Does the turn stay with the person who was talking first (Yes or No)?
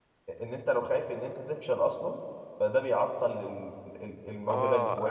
No